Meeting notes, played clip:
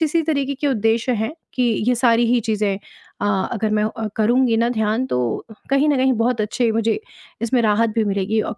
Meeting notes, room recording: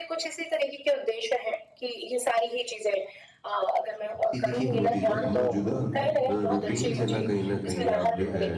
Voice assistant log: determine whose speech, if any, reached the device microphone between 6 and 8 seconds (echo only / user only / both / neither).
both